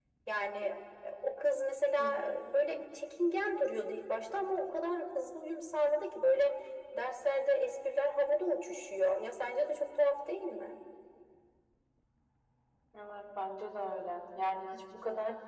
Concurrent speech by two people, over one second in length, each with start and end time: none

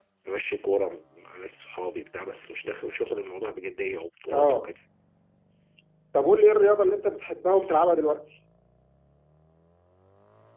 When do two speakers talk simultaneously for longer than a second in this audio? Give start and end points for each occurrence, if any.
none

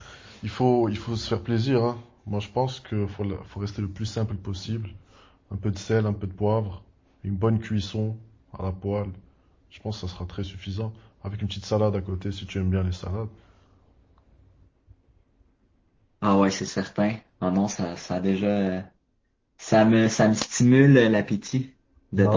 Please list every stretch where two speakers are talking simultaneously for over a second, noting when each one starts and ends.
none

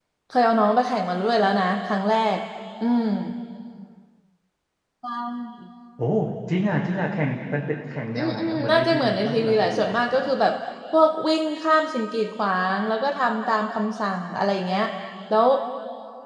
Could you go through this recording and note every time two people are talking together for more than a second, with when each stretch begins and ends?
8.1-10.0

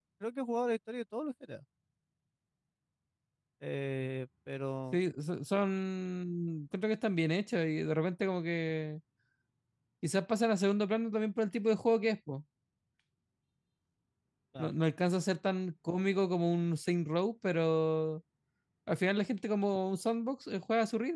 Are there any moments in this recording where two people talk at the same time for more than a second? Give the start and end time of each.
none

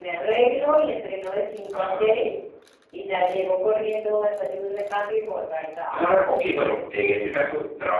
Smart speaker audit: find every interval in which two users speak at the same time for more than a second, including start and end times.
none

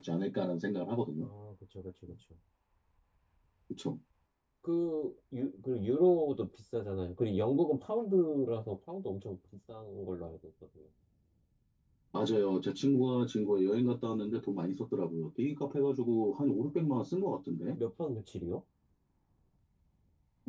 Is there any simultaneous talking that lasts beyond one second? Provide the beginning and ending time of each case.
none

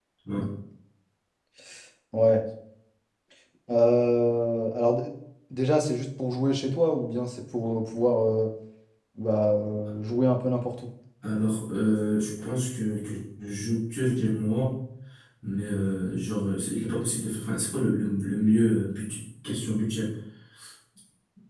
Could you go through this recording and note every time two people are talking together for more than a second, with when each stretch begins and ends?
none

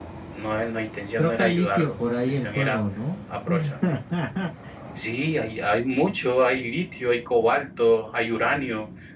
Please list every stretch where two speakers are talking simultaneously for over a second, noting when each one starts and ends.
1.2-2.8

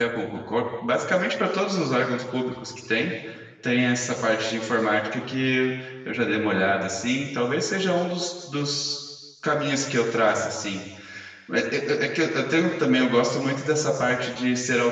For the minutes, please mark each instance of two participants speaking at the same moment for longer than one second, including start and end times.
none

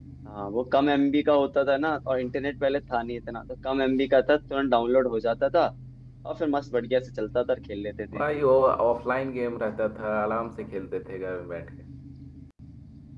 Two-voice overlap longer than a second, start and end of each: none

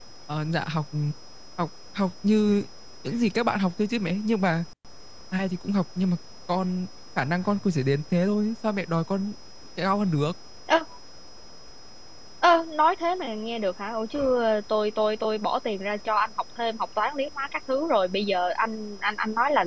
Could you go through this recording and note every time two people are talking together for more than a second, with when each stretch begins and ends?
none

